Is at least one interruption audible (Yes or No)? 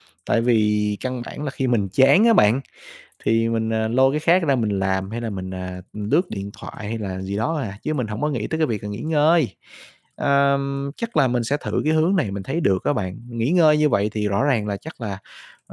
No